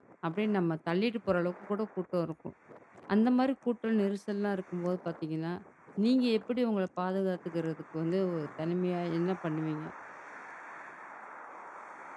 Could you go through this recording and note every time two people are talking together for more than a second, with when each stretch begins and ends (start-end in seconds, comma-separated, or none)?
none